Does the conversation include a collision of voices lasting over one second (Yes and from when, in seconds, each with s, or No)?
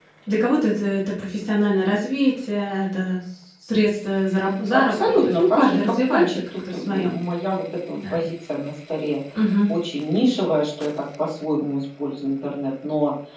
Yes, from 4.7 s